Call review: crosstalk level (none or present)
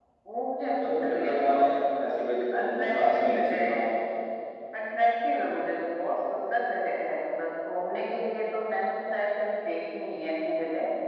present